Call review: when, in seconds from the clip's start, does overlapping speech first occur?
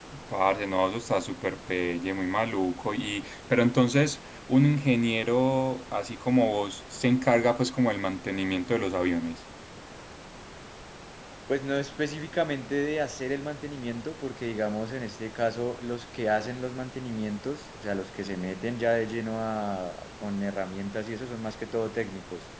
none

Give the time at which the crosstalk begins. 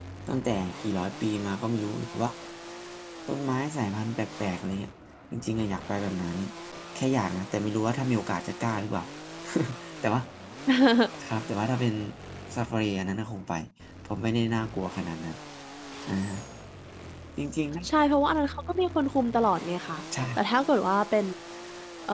none

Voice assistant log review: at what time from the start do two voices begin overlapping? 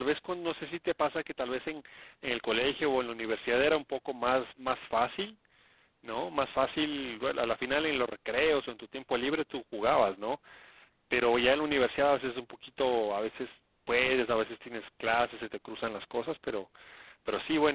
none

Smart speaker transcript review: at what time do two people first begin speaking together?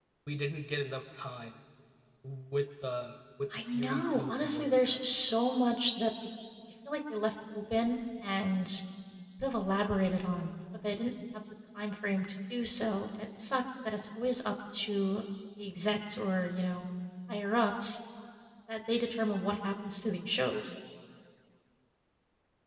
3.5 s

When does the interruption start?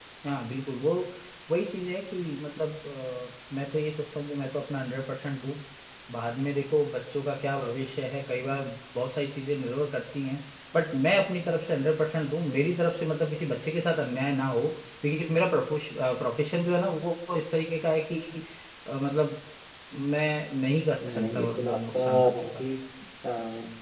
21.0 s

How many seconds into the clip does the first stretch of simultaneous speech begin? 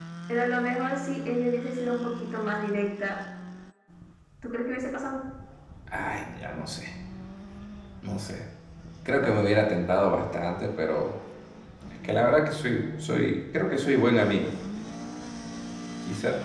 none

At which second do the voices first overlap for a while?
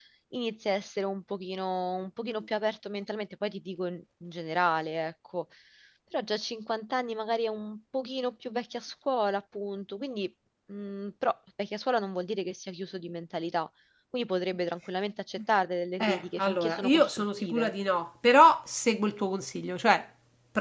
16.0 s

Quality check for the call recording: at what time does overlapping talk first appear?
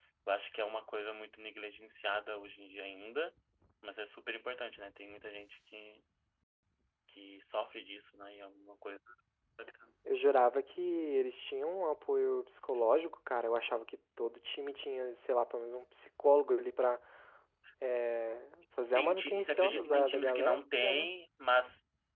18.9 s

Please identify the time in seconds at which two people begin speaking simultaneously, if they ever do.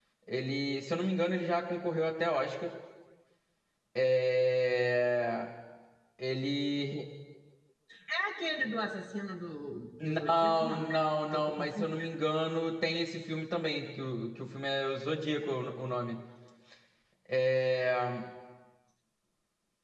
10.0 s

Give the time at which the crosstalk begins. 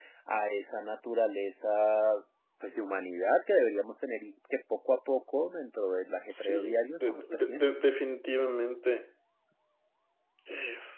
6.3 s

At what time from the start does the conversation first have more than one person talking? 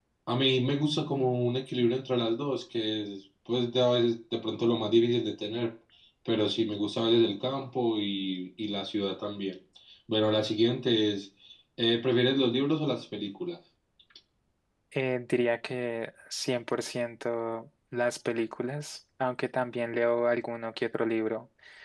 none

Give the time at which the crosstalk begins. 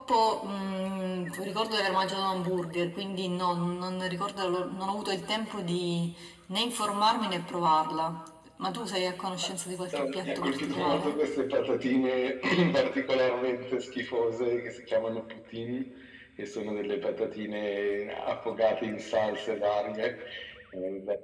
9.9 s

